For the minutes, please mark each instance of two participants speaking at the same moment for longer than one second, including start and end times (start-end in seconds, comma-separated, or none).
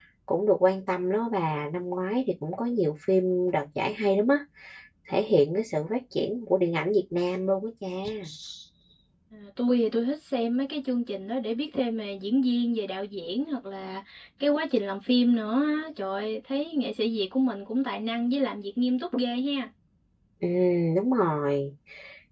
none